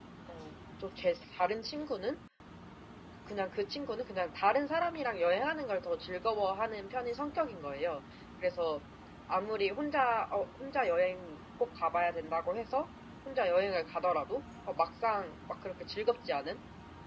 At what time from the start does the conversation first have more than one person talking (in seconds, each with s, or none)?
none